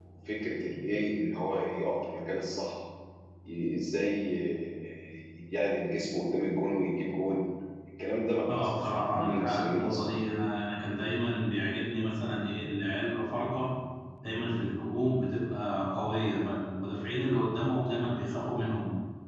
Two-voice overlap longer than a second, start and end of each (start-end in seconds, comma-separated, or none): 8.5-10.1